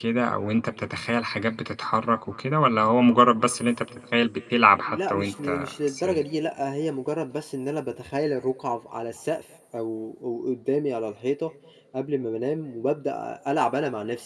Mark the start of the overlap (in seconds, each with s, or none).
4.9 s